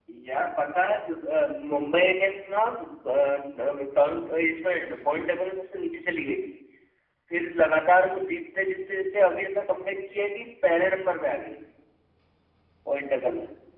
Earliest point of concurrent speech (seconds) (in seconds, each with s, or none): none